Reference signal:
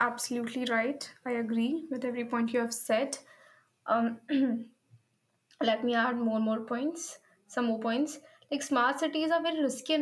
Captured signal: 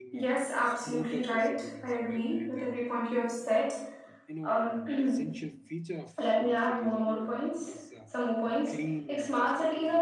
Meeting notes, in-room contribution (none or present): present